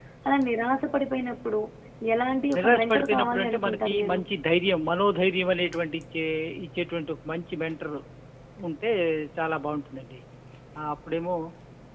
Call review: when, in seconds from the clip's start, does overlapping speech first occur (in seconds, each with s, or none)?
2.6 s